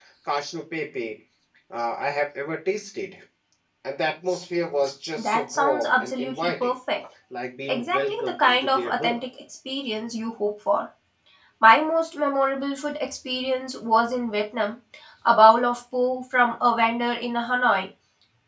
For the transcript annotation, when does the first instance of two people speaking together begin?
5 s

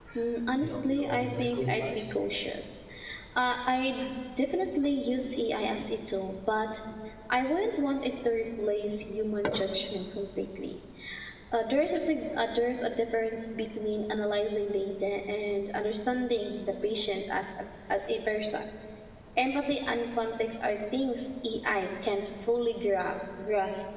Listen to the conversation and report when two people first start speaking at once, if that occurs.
1 s

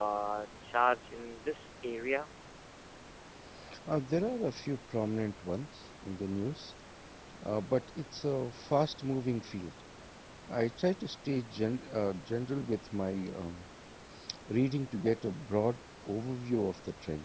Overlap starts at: none

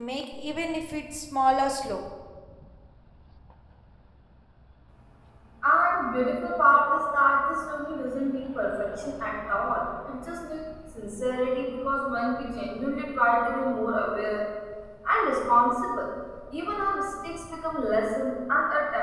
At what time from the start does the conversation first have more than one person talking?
none

